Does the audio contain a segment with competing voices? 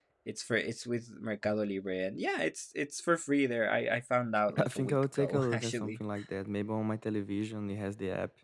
Yes, from 4.5 s

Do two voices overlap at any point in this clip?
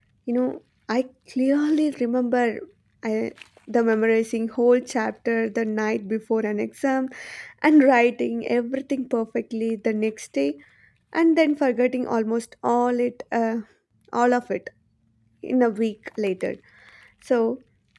No

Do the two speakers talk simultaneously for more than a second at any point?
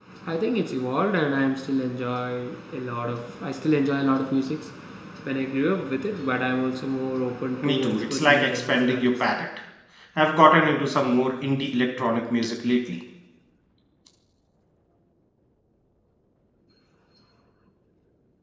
Yes, from 7.6 s

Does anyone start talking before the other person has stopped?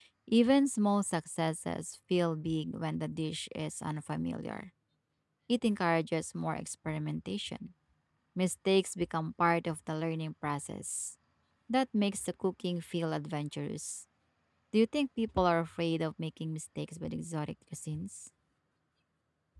No

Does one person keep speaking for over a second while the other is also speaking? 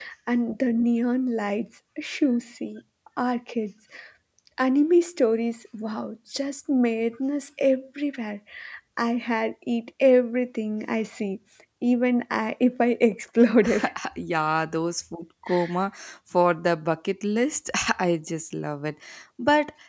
No

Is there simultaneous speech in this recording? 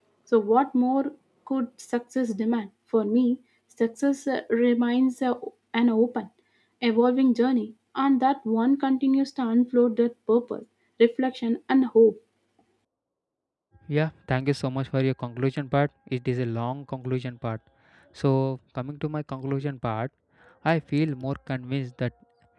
No

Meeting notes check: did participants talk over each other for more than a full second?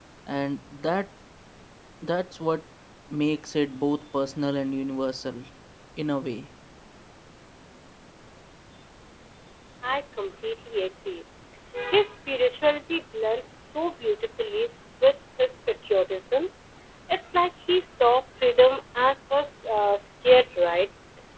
No

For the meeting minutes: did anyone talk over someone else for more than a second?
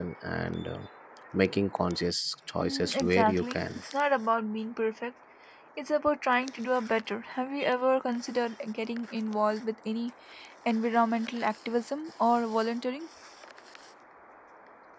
Yes, from 2.6 s

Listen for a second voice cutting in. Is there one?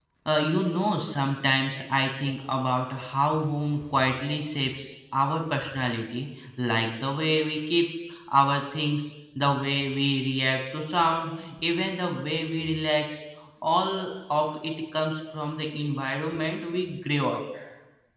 No

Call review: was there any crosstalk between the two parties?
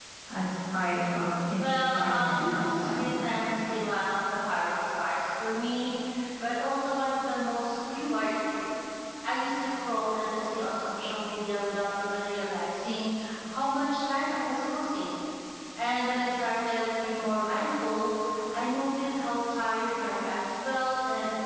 Yes, from 1.6 s

